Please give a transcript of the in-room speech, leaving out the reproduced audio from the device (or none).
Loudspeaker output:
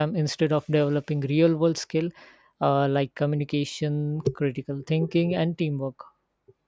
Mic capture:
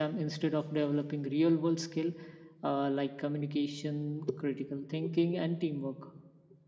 none